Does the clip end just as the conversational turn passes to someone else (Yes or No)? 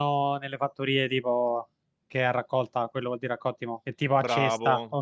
Yes